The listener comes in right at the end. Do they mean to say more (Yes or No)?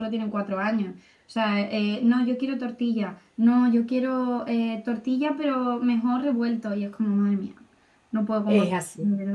Yes